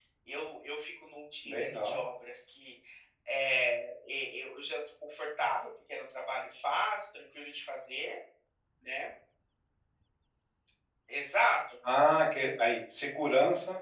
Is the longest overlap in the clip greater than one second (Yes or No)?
No